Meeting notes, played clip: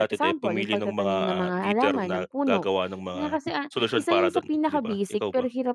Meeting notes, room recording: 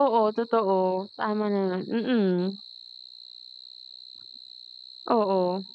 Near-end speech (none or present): present